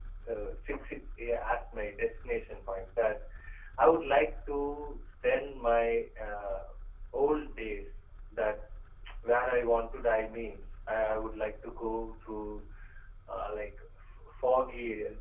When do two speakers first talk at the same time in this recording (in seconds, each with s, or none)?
none